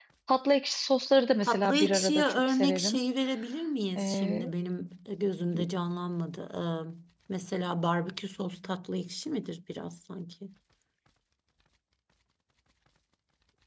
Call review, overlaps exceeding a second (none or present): present